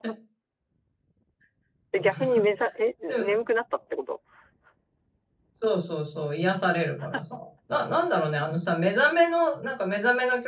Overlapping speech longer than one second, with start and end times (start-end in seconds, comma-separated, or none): none